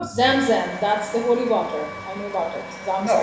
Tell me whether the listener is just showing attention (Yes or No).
No